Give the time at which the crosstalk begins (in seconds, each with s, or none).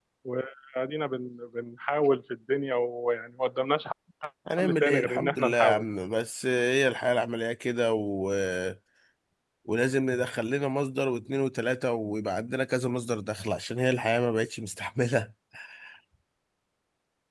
4.6 s